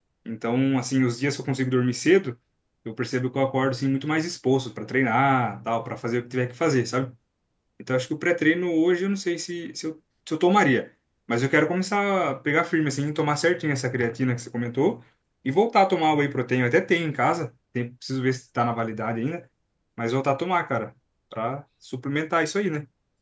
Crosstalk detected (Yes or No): No